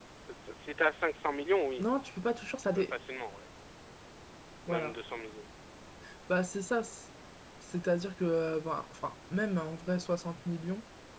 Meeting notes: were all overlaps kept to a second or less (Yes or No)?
Yes